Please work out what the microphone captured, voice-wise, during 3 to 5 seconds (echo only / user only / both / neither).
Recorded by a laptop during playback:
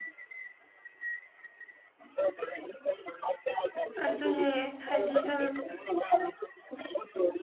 both